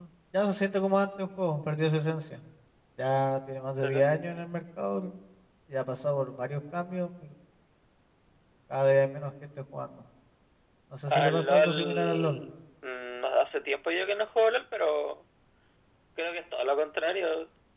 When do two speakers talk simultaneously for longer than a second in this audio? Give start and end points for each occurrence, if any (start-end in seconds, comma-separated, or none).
11.1-12.4